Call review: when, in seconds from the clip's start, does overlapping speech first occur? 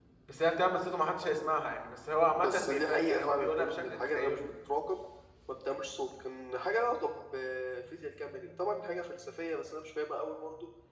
2 s

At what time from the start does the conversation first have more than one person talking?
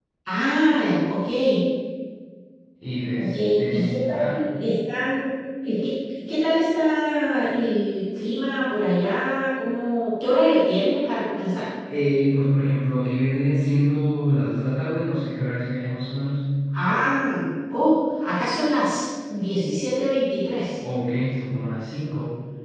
3 s

